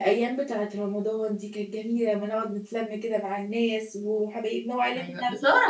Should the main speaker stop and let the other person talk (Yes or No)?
Yes